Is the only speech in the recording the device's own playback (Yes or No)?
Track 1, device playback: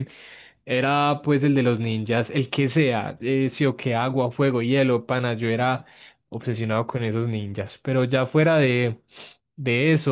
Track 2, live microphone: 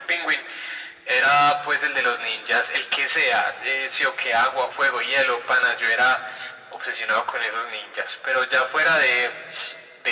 Yes